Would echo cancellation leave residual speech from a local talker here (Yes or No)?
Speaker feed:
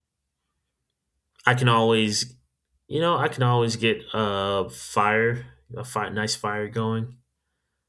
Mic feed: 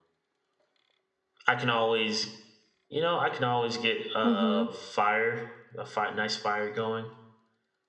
Yes